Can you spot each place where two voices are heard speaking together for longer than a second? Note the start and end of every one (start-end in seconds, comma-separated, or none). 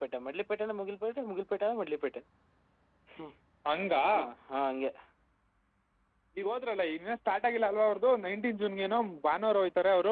none